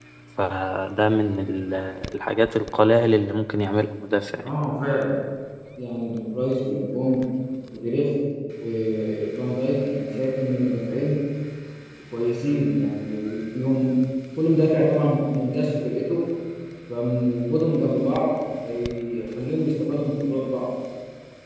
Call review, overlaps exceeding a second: none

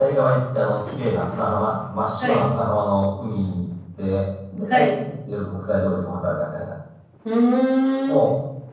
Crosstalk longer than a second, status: none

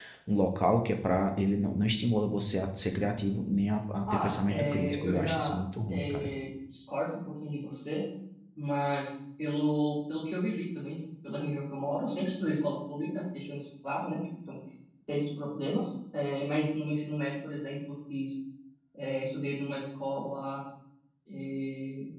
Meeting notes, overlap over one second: present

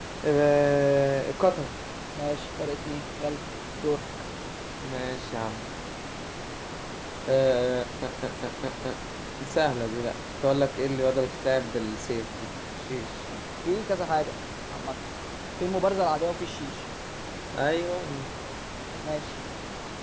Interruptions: none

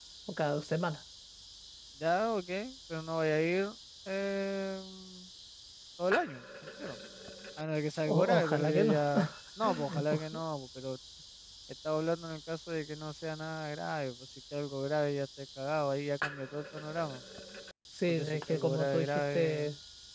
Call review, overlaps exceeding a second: present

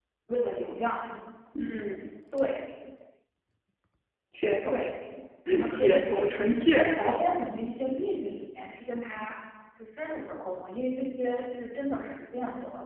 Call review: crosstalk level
present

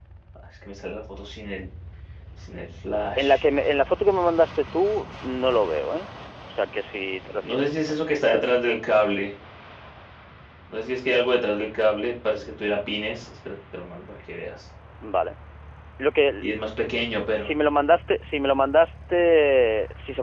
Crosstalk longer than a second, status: none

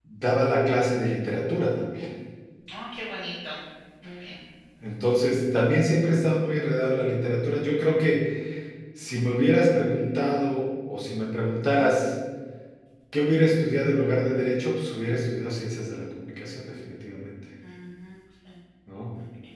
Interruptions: none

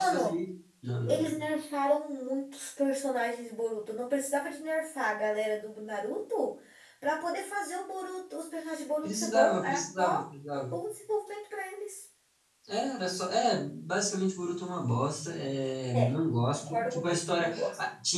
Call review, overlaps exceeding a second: present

